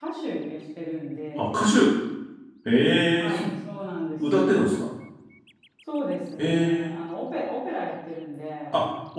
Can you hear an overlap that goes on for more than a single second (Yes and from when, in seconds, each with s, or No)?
No